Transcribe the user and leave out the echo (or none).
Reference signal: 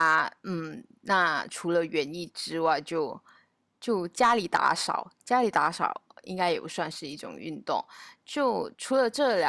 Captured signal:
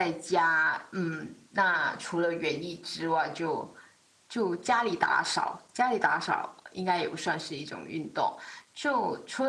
none